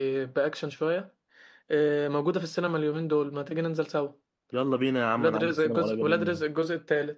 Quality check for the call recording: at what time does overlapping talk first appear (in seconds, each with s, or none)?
5.2 s